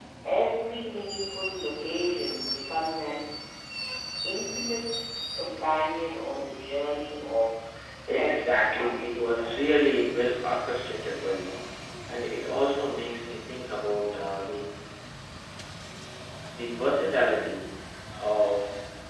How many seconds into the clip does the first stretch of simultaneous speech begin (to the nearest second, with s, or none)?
8 s